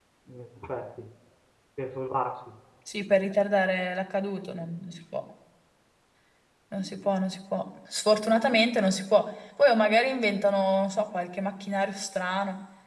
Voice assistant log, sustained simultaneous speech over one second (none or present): none